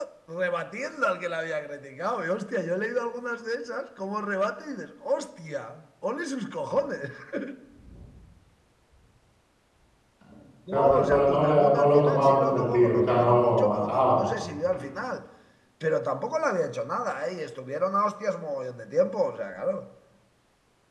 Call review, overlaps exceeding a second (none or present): present